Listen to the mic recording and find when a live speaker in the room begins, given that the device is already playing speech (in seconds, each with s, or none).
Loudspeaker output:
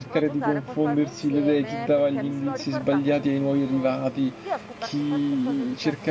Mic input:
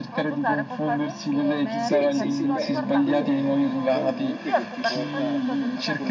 1.8 s